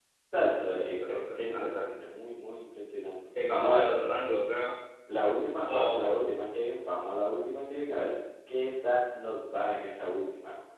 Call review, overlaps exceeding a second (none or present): present